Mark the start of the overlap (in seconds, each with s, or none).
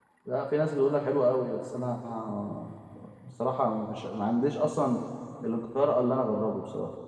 none